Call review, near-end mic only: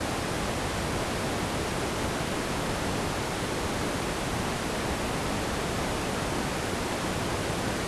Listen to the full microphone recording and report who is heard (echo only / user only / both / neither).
neither